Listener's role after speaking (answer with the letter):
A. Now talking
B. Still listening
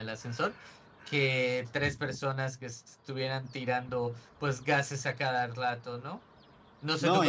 A